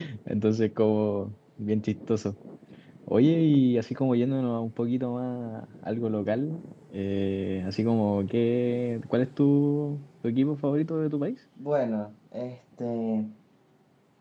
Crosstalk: none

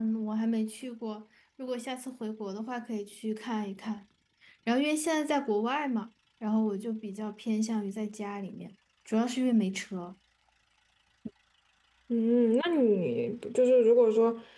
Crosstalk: none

